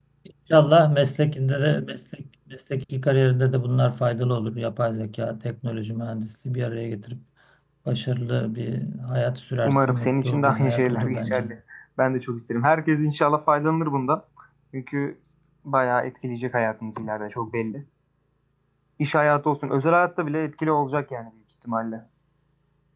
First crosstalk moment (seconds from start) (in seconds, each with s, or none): 9.6 s